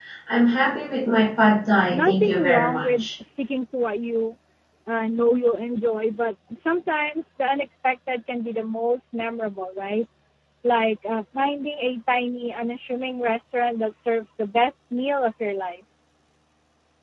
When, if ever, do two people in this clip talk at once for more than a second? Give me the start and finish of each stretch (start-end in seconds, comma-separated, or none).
1.9-3.1